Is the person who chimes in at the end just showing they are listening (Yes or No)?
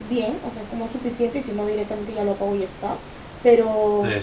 Yes